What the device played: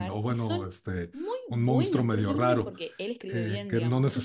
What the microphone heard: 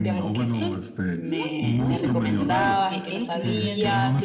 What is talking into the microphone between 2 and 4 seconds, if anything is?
both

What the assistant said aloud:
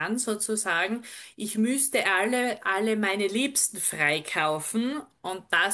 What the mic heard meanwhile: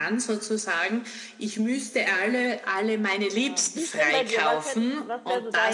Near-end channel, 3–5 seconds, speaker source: both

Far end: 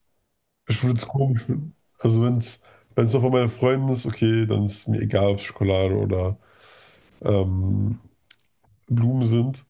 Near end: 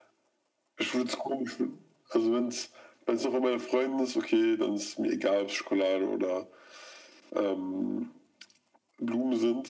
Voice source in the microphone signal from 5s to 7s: echo only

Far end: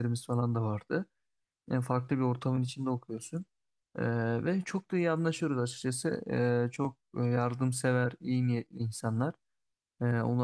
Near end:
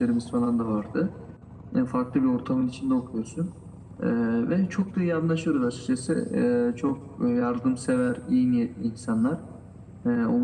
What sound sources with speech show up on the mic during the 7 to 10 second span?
echo only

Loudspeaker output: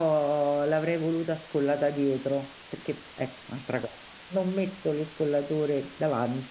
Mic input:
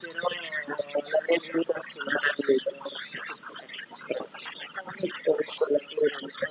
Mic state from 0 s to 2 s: echo only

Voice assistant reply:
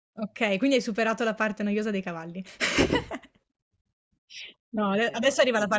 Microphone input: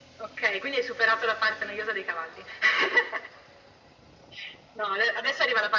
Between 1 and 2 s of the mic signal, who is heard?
echo only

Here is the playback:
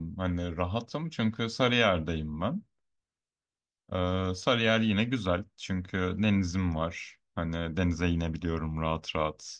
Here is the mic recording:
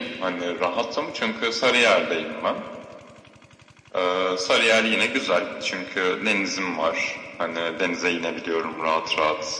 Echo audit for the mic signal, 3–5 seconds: echo only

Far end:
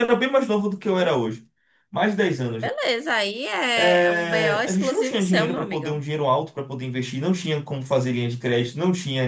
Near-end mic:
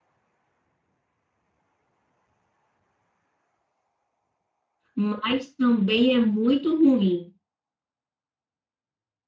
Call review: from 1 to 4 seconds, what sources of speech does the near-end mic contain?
neither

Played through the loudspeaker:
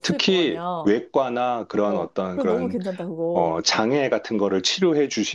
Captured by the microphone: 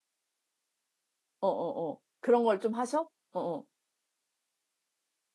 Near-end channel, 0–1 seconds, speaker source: neither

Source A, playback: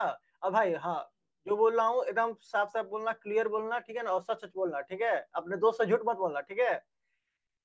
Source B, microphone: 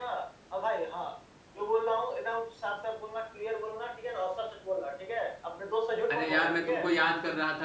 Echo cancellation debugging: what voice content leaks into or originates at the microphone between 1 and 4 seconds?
echo only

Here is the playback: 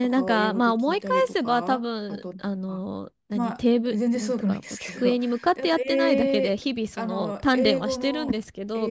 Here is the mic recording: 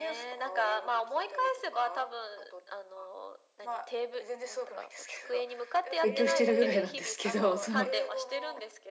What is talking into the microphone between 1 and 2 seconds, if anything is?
echo only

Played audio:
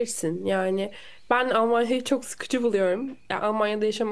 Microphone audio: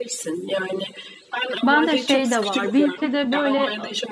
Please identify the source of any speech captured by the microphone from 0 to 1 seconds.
echo only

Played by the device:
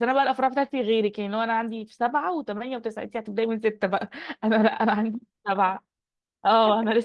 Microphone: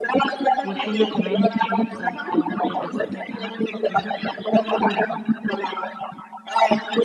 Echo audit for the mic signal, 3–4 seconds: both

